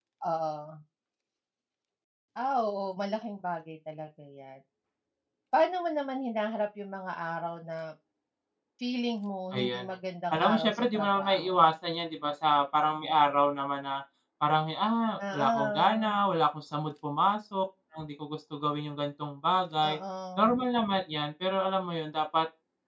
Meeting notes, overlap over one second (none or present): present